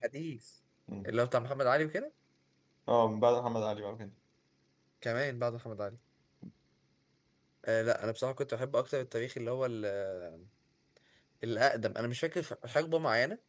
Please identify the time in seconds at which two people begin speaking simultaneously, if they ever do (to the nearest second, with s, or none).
none